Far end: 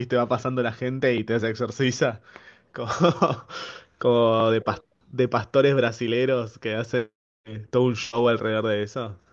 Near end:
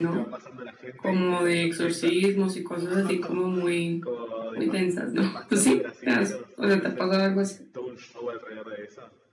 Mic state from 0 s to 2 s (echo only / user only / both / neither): both